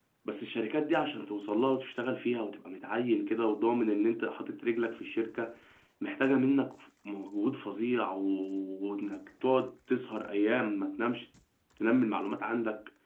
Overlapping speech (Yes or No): No